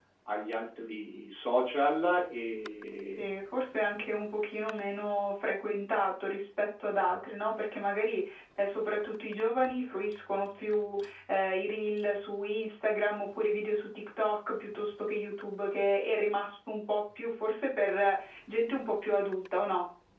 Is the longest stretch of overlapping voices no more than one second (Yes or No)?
Yes